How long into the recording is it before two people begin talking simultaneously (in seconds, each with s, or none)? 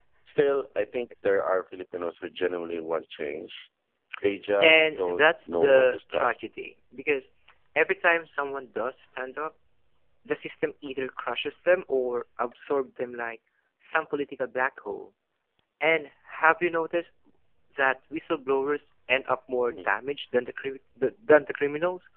4.6 s